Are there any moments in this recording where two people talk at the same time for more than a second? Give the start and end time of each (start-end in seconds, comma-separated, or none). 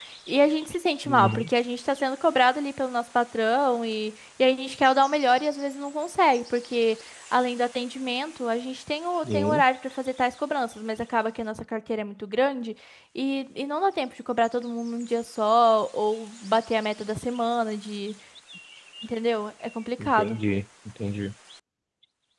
none